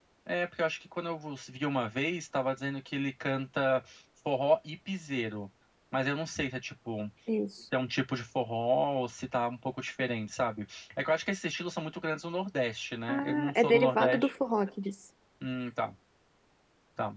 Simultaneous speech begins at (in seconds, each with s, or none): 13.1 s